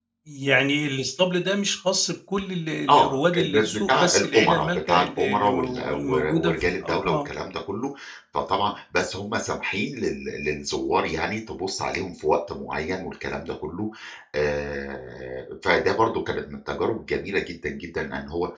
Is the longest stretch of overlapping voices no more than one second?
No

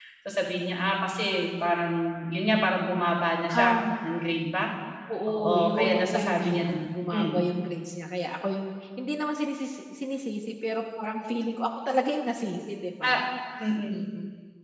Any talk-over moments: Yes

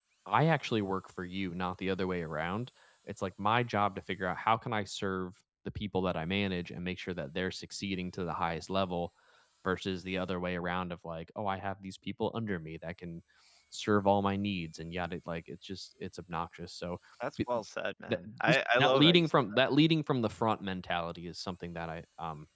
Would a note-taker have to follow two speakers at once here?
Yes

